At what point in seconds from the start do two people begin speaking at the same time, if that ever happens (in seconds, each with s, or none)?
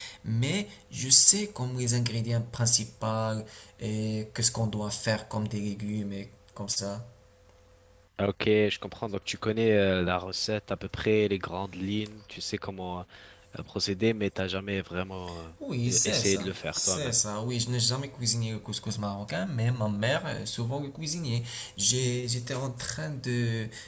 15.9 s